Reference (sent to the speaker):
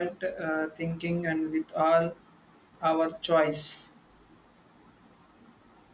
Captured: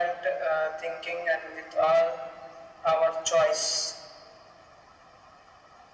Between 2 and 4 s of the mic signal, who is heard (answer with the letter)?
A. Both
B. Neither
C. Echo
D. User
C